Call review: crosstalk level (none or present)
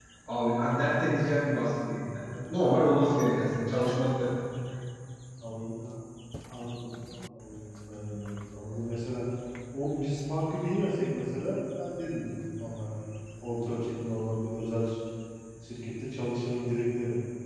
none